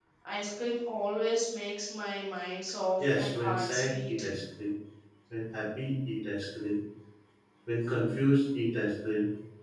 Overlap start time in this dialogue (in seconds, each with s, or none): 3.0 s